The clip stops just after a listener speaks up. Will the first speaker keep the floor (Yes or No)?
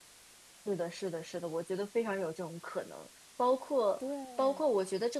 Yes